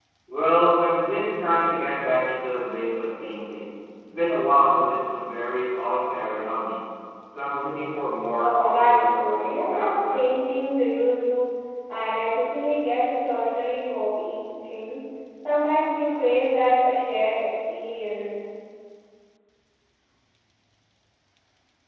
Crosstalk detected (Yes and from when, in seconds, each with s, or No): Yes, from 8.4 s